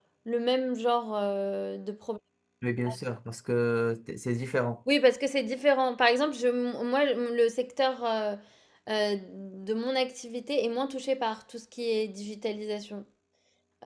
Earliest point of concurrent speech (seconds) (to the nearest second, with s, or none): none